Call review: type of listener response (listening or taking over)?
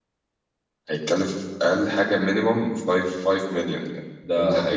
taking over